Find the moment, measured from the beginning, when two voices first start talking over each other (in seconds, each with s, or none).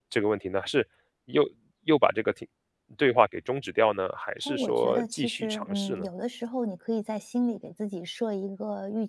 4.5 s